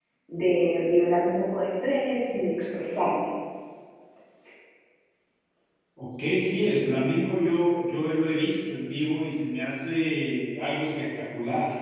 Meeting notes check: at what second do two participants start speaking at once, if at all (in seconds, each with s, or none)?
none